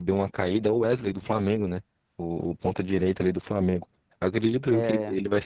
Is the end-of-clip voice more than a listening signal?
No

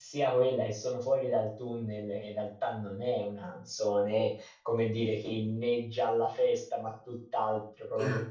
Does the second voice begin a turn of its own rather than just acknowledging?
No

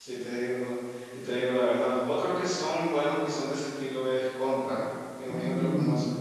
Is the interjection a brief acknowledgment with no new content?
No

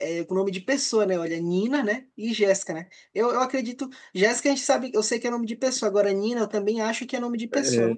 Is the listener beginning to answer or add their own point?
Yes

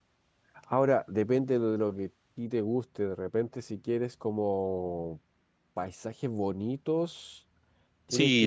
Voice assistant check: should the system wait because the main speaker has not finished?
No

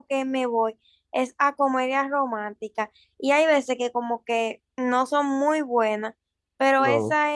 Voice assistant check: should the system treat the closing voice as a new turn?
No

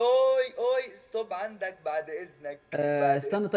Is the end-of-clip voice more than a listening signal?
Yes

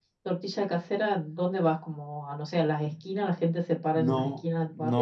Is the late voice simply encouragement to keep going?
No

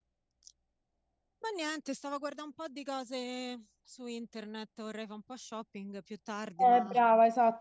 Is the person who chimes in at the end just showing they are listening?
No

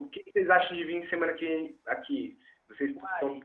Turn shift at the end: Yes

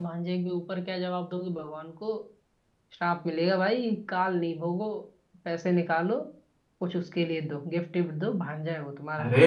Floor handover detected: Yes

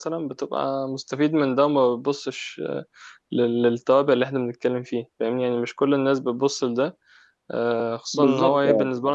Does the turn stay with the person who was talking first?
Yes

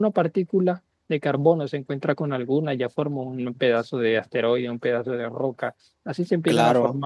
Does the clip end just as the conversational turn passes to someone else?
No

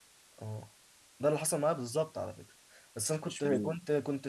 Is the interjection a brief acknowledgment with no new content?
Yes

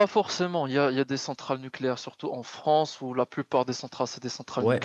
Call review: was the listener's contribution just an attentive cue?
No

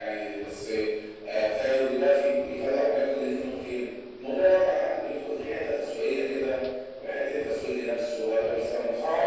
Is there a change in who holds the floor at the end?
Yes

